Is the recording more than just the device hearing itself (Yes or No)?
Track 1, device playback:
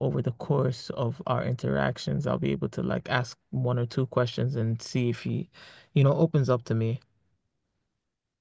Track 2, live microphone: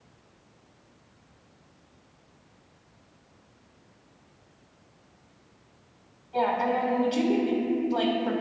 Yes